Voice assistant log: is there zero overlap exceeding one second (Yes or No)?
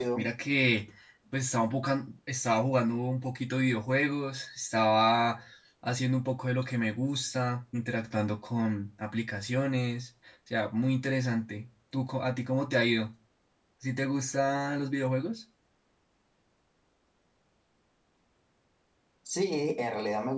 Yes